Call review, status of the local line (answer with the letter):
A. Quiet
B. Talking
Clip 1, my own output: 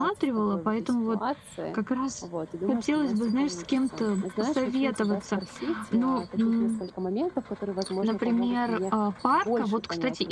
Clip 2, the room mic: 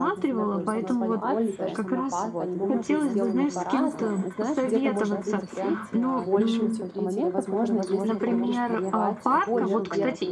B